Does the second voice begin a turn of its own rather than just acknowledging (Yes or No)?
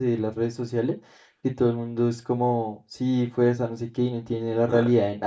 No